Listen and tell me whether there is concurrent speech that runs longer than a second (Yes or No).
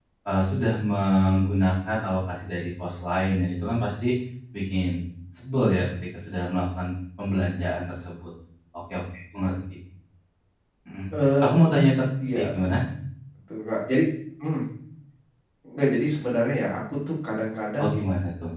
No